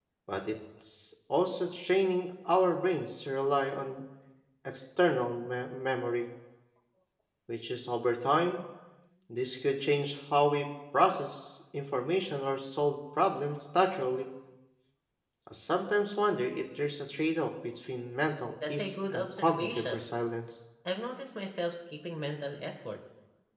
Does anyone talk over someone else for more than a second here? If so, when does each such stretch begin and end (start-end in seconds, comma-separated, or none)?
18.7-20.0